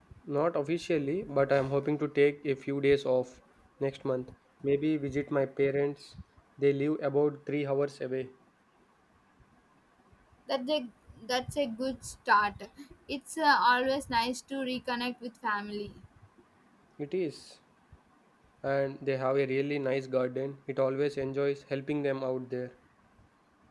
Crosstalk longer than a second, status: none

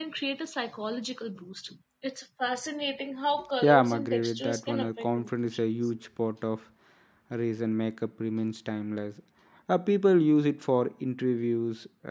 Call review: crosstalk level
present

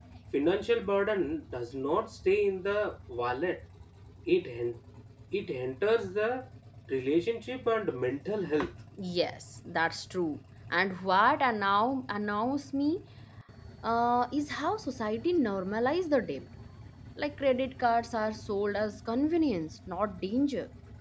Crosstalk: none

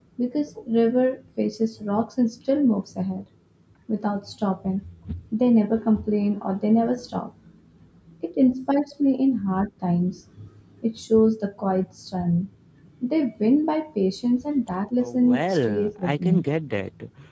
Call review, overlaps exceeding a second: present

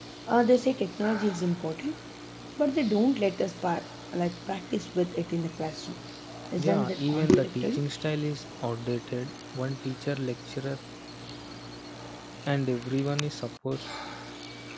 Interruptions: present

